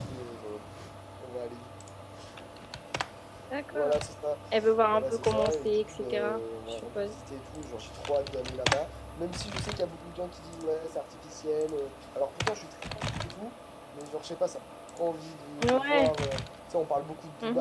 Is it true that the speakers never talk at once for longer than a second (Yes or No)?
No